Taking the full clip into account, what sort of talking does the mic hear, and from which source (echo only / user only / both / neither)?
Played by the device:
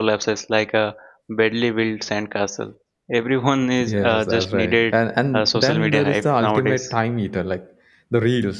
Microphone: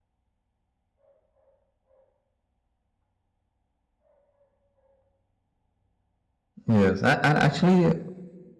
user only